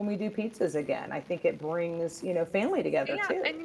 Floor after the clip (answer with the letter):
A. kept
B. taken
B